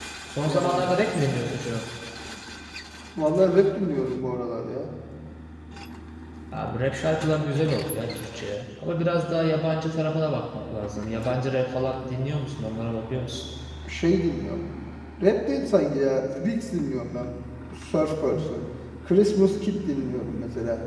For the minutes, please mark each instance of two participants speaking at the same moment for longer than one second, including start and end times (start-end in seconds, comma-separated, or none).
none